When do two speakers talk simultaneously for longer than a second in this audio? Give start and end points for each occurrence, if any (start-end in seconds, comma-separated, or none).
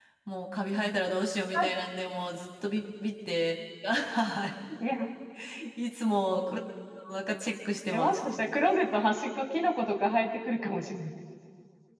none